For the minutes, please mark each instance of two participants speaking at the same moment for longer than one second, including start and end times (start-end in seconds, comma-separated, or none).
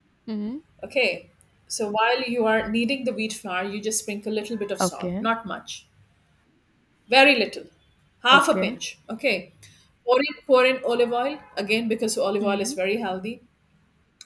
none